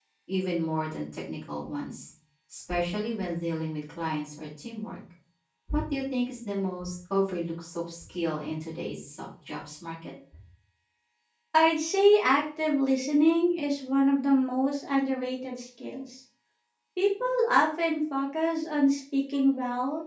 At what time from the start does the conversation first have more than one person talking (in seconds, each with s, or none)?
none